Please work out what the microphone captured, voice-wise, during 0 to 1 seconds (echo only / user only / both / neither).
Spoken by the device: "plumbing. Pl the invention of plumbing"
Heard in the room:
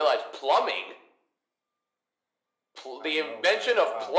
echo only